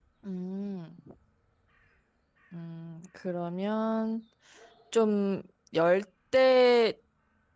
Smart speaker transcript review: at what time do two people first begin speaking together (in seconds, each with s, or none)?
none